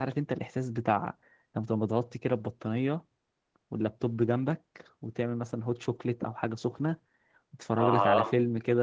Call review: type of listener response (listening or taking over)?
listening